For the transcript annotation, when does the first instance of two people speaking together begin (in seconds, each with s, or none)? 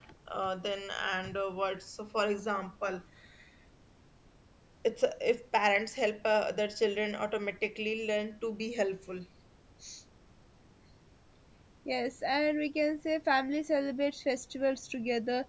none